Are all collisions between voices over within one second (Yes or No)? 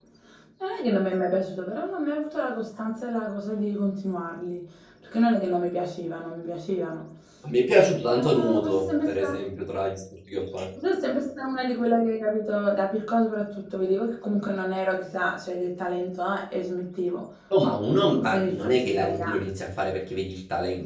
No